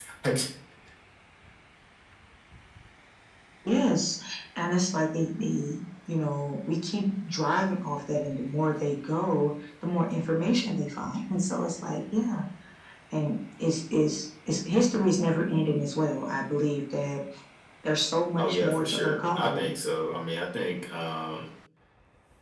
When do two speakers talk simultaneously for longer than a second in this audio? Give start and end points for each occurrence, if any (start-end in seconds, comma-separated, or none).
18.4-19.7